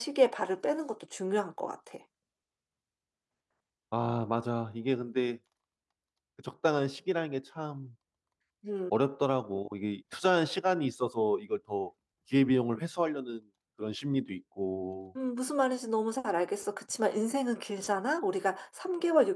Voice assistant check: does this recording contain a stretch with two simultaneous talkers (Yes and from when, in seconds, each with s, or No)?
No